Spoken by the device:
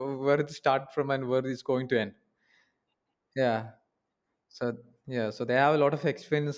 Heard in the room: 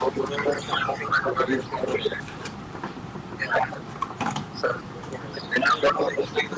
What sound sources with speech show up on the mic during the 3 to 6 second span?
echo only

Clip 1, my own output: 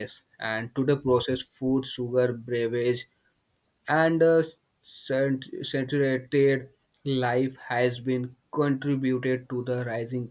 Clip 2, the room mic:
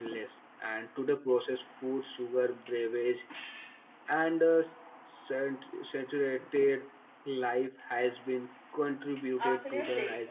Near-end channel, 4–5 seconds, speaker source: echo only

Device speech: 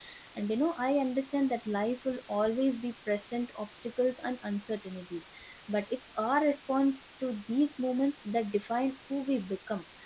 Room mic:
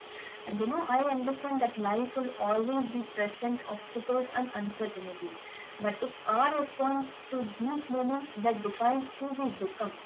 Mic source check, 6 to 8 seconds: echo only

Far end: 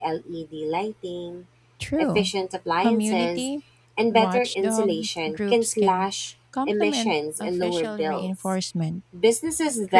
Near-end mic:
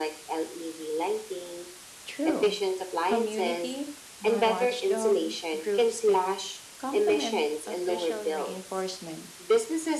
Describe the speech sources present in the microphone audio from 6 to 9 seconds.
echo only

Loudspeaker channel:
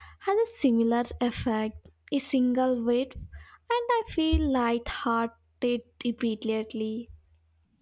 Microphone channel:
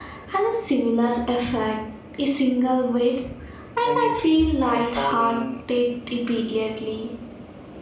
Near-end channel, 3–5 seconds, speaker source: both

